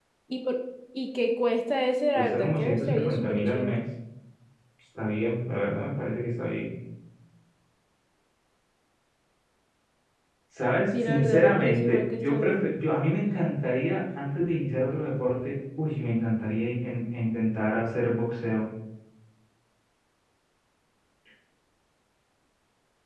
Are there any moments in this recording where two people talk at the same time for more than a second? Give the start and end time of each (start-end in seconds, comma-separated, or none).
2.2-3.8, 11.0-12.7